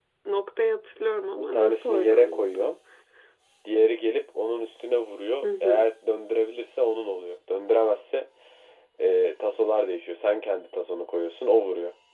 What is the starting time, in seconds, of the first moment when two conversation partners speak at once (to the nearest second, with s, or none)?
1 s